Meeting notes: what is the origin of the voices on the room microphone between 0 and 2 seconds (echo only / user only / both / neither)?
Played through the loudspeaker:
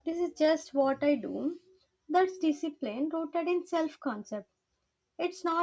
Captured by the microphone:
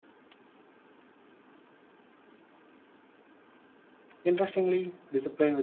neither